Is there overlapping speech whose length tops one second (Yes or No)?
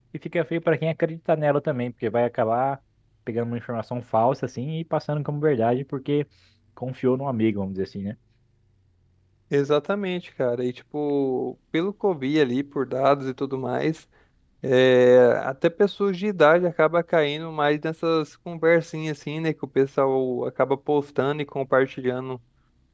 No